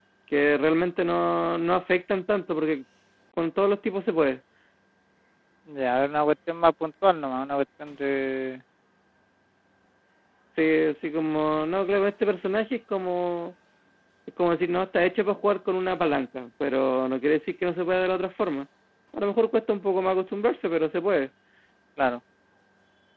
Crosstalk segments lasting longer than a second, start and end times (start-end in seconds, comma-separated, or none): none